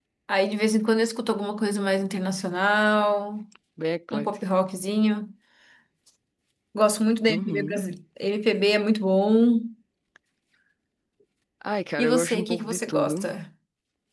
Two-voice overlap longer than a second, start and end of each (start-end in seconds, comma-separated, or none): 12.0-13.2